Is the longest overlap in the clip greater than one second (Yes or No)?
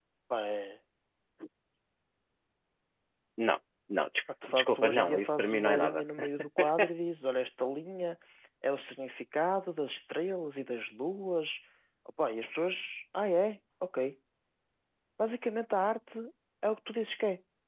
Yes